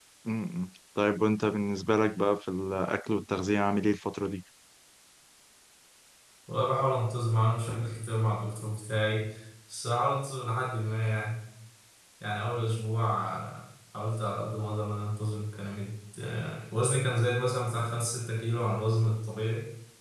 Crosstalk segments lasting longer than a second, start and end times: none

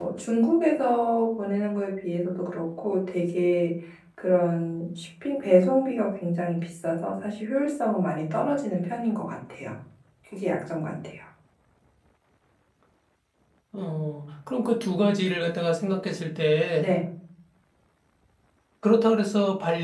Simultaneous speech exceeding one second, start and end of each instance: none

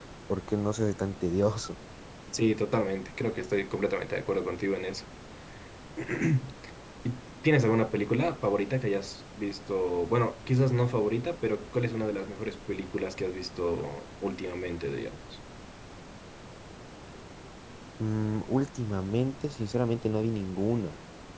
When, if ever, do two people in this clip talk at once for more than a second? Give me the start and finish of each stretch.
none

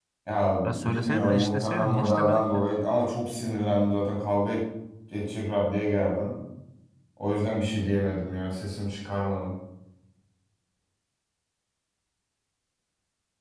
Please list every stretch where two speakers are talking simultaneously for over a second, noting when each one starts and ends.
0.6-2.6

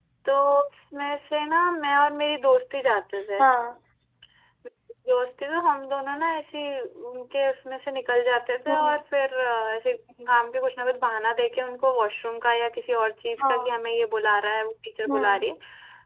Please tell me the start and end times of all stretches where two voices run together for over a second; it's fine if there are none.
none

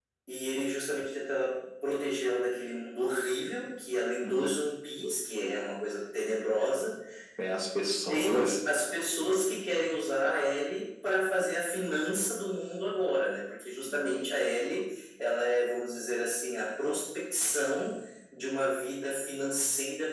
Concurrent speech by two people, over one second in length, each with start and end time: none

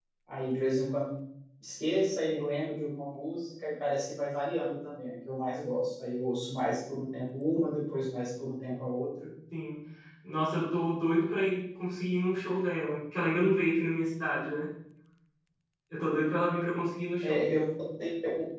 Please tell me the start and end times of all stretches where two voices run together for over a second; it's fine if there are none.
none

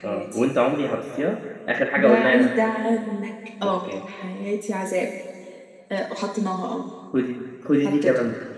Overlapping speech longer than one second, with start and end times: none

